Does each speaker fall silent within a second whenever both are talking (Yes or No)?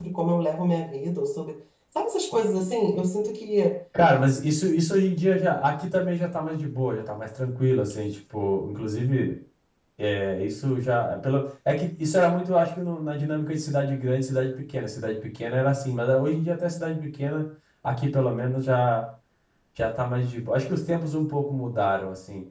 Yes